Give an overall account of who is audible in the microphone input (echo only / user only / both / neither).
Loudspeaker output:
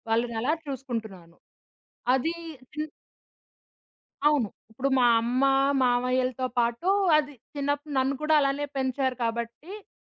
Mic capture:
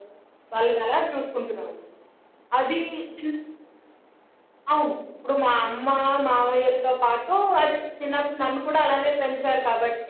echo only